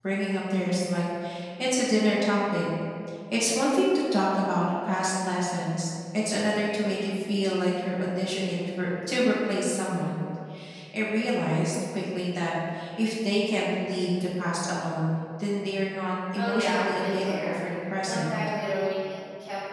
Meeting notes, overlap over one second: present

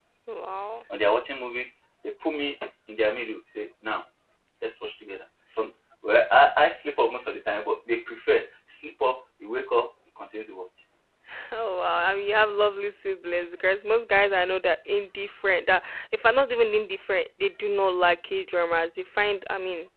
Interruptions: none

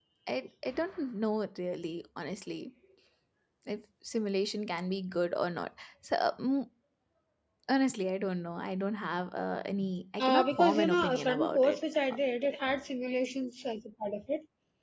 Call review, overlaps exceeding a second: present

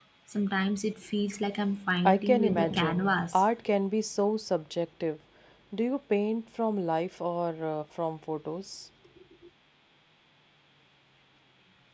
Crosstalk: present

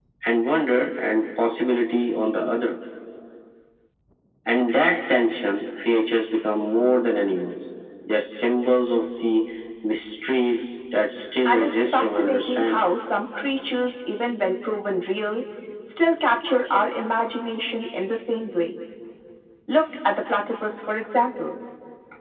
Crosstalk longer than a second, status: present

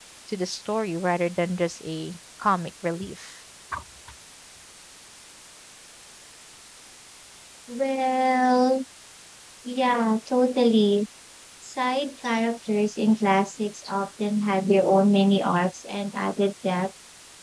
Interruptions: none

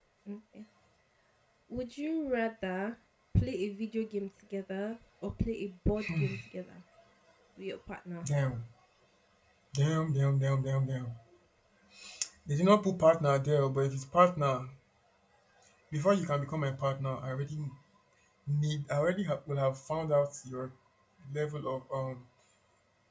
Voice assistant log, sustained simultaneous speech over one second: none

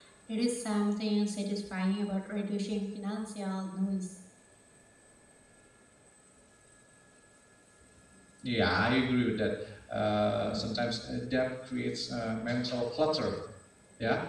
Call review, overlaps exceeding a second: none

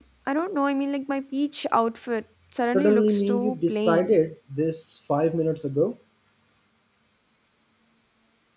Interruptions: present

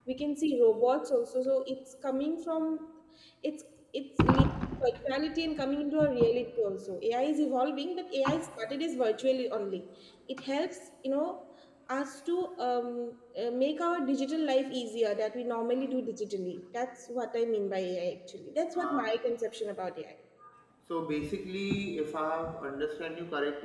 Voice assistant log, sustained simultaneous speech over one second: none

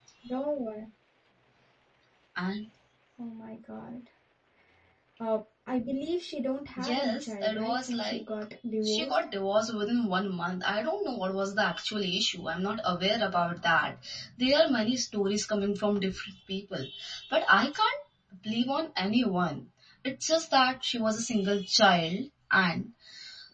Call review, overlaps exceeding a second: present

